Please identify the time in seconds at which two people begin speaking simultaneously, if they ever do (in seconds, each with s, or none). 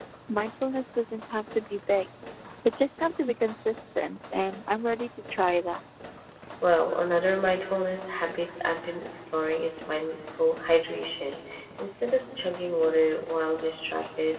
none